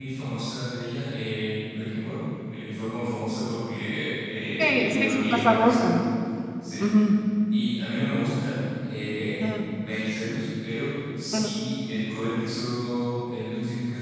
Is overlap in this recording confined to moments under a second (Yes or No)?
No